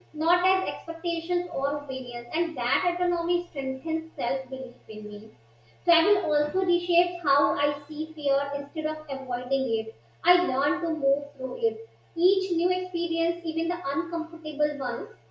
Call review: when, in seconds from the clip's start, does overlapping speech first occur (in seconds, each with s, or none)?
none